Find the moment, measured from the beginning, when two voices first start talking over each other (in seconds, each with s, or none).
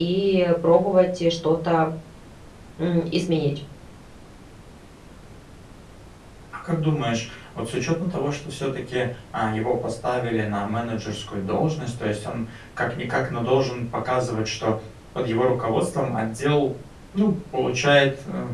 none